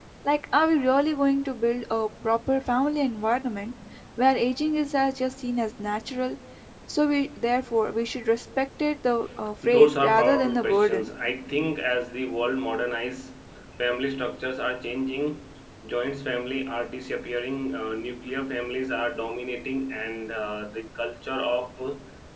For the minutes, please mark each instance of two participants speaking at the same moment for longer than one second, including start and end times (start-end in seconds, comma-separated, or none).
9.7-11.1